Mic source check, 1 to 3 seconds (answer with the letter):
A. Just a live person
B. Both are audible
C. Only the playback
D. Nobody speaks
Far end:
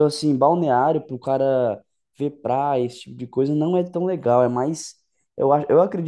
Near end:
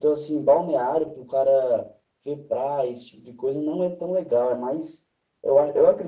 C